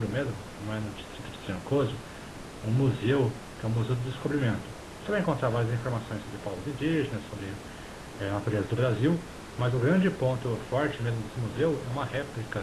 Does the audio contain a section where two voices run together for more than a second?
No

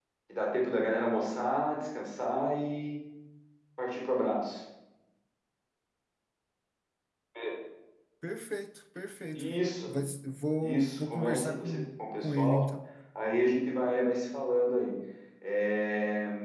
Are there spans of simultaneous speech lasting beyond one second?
Yes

